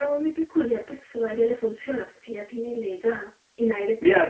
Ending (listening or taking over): taking over